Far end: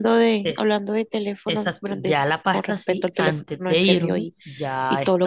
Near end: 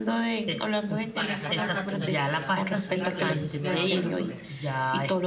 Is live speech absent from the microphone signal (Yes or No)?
No